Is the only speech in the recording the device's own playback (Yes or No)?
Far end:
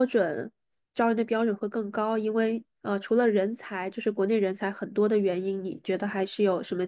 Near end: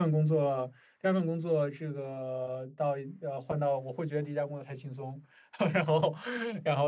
No